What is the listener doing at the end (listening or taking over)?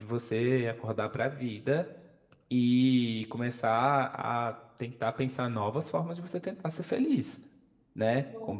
listening